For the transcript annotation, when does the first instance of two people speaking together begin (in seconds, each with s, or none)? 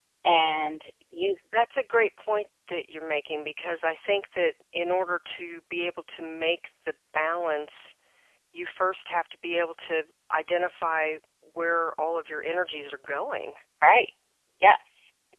none